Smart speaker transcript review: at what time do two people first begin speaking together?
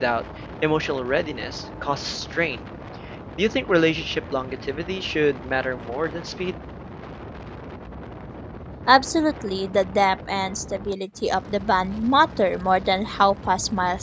none

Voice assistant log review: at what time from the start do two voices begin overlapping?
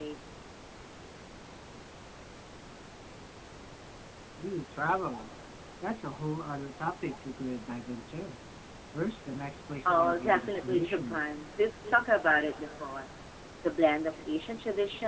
9.8 s

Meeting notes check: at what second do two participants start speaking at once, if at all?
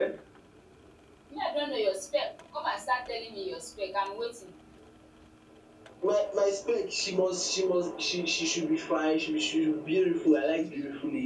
none

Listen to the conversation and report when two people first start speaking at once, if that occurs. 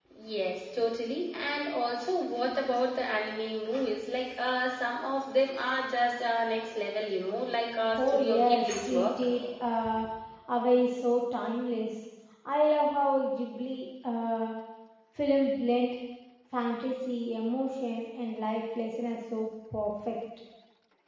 7.9 s

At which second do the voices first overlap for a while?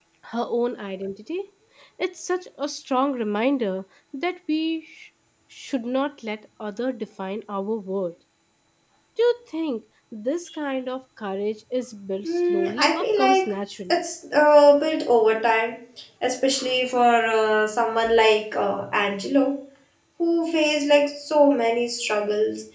12.2 s

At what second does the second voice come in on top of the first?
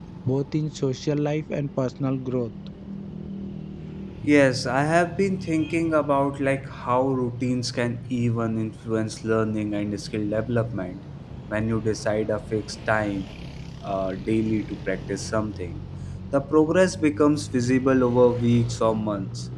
none

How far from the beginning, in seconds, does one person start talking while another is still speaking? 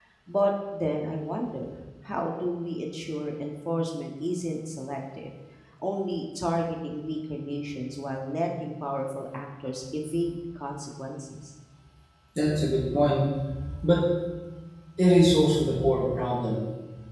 none

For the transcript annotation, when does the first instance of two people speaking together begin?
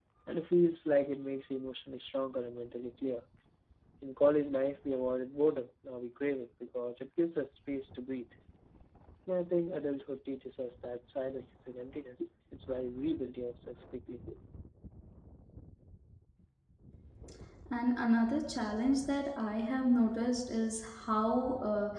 none

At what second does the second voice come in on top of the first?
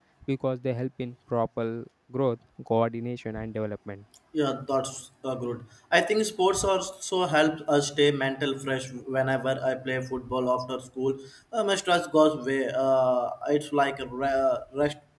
none

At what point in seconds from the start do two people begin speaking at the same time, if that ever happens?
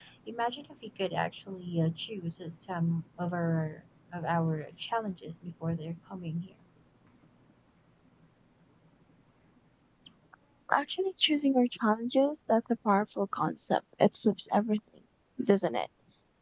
none

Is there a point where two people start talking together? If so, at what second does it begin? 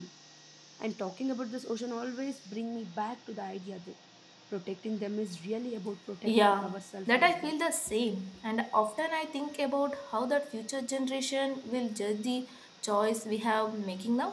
6.2 s

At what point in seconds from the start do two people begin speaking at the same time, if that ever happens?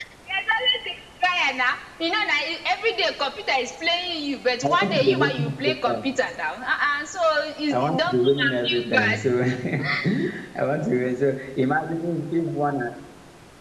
4.6 s

